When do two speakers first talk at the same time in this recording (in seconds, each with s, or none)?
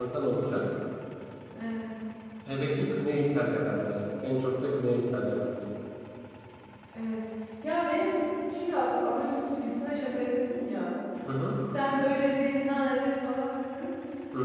none